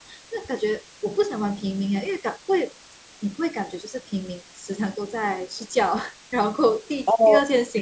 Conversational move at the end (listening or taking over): listening